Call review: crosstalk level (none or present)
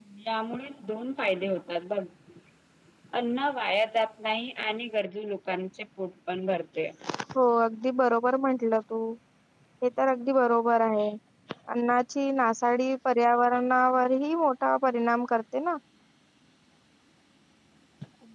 none